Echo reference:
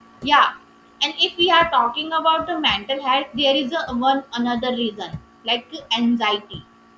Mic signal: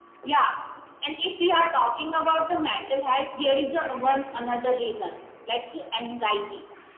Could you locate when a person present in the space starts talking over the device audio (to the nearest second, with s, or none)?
none